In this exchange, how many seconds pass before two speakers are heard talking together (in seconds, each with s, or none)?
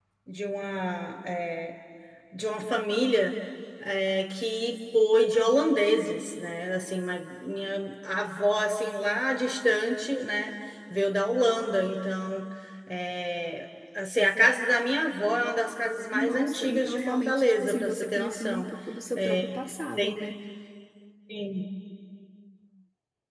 16.1 s